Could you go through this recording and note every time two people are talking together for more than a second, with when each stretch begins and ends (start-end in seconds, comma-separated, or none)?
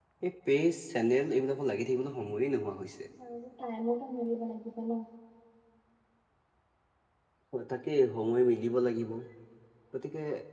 none